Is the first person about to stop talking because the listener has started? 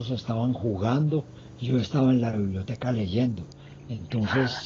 No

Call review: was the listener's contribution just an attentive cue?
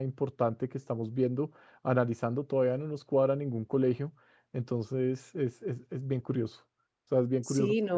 No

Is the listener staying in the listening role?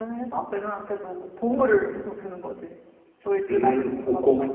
No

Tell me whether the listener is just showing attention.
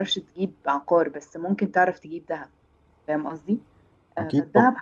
Yes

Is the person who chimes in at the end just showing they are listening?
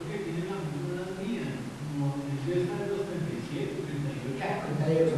No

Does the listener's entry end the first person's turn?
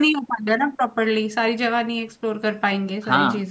Yes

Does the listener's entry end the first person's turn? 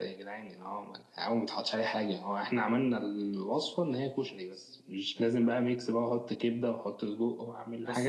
Yes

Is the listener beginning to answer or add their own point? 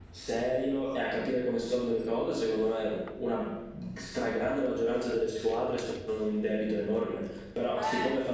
No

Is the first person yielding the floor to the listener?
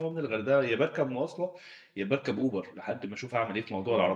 No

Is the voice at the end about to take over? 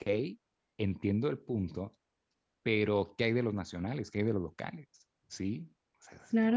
Yes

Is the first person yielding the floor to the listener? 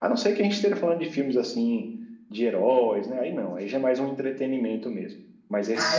Yes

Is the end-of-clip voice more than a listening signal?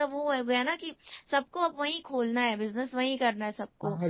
Yes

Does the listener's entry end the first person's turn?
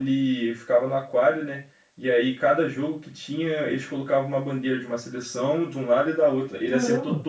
No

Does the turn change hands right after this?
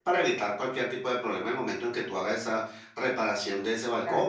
Yes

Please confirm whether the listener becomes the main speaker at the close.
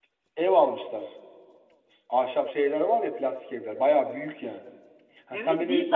Yes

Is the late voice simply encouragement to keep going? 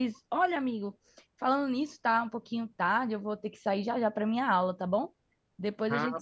No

